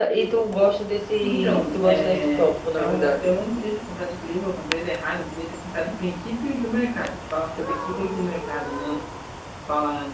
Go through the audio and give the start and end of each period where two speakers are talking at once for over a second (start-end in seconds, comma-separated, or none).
1.2-3.3